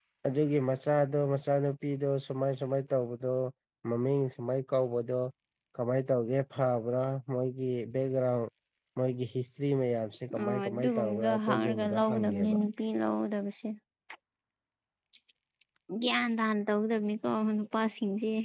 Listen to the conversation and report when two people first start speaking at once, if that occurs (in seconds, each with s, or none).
10.3 s